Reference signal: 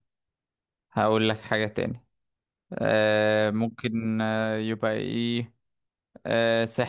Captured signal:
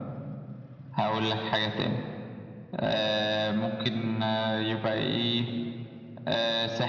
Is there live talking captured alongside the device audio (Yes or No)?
No